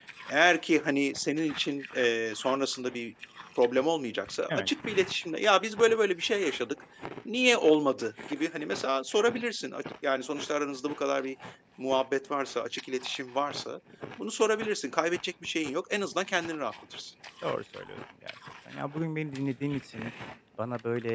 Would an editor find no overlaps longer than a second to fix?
Yes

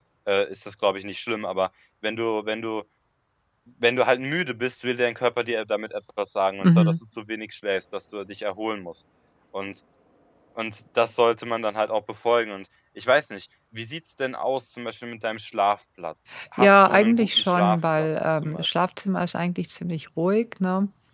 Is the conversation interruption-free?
No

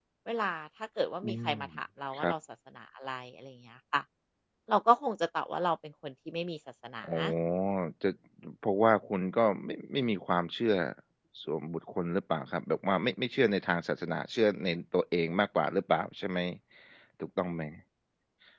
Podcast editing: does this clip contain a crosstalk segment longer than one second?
No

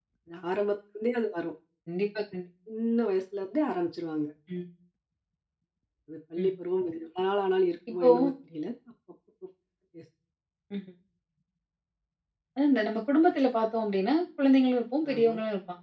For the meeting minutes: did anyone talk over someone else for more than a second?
No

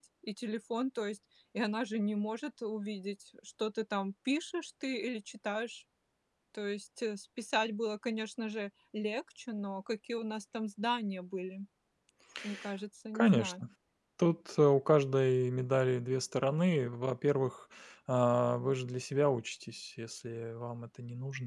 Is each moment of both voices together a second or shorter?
Yes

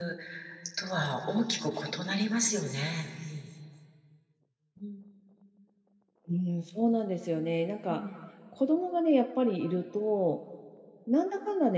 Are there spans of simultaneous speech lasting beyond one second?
No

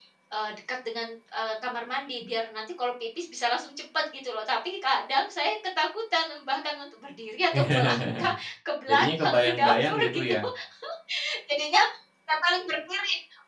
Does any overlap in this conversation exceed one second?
Yes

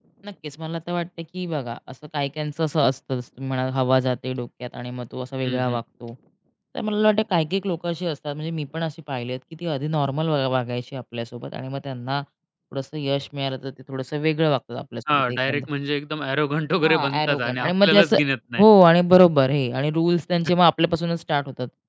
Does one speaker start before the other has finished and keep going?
Yes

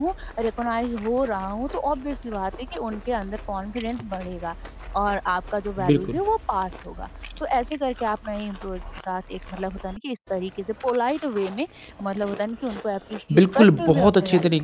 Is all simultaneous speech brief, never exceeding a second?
No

